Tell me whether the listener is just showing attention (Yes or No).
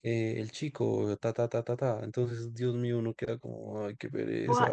No